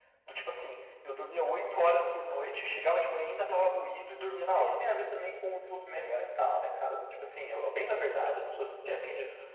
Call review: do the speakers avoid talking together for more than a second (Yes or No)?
Yes